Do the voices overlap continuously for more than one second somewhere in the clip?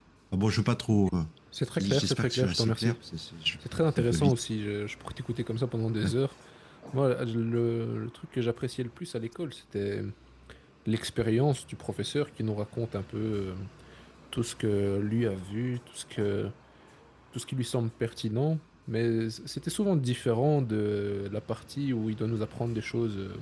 Yes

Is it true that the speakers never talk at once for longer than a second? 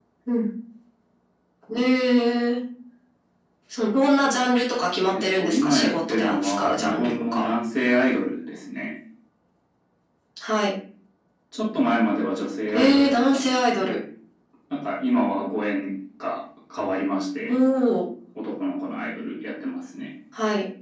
No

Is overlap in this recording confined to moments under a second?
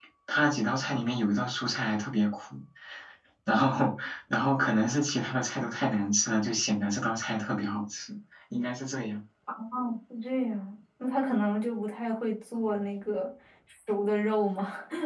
Yes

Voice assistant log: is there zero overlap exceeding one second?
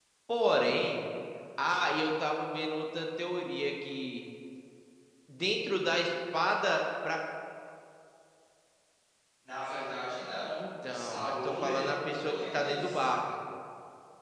No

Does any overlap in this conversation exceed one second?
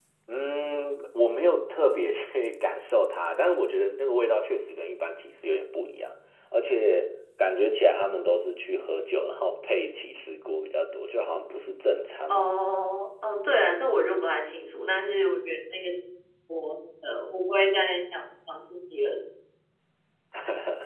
No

